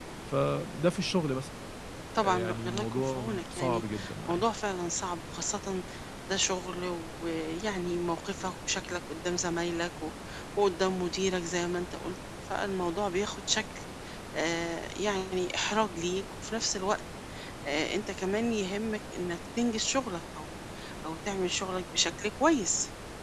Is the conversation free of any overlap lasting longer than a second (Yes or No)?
No